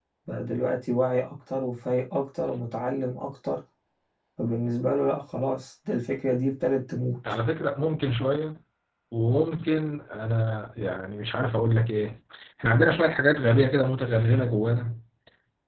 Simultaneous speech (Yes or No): No